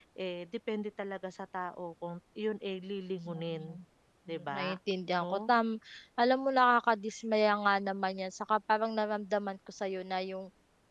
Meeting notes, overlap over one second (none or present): none